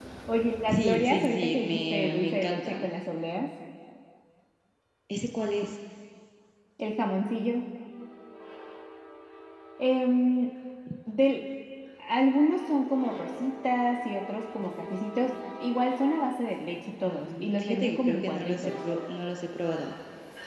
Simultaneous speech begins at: 1 s

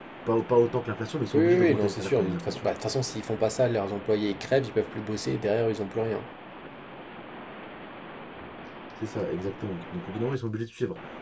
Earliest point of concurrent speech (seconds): 1 s

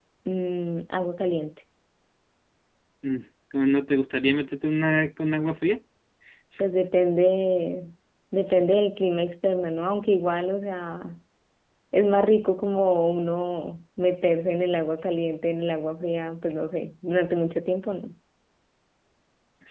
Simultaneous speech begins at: none

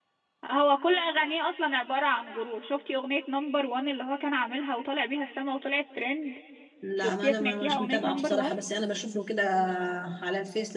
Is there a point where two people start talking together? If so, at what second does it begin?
7 s

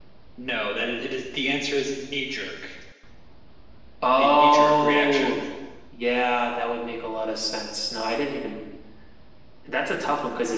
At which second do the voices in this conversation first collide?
4 s

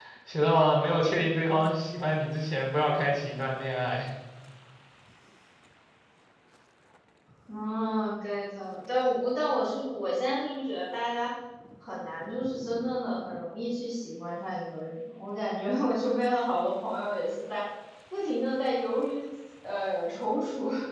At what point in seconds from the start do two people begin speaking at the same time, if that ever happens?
none

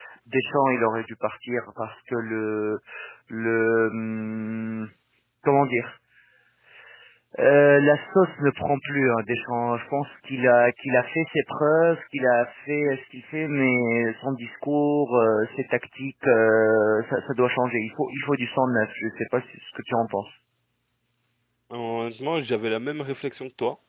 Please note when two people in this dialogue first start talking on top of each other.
none

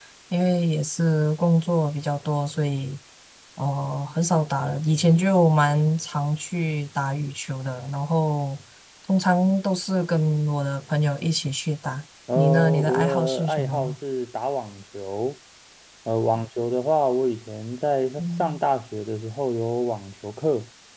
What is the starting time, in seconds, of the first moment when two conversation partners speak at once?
12 s

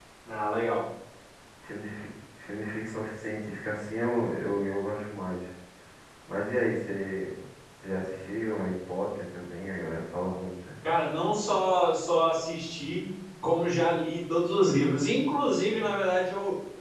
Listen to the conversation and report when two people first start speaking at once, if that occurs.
none

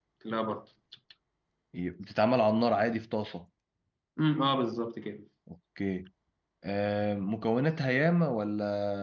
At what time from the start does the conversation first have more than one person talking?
none

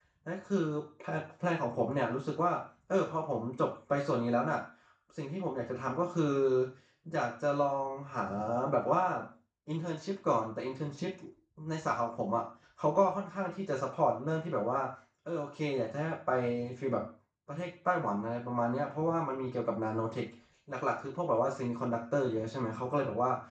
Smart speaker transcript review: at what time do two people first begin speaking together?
none

